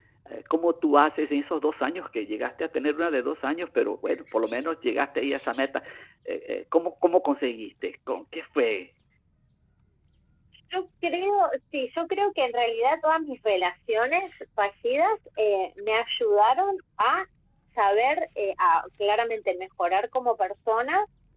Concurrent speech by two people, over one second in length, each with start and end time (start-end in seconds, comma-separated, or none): none